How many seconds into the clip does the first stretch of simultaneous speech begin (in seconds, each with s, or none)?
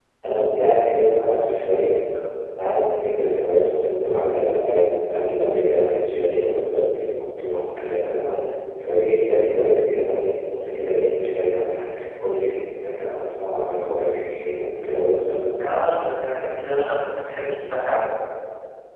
none